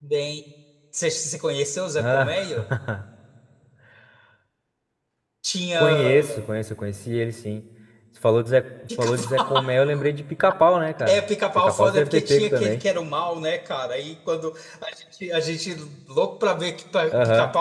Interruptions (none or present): present